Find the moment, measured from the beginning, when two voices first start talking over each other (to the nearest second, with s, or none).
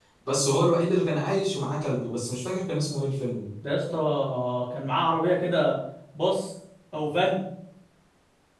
none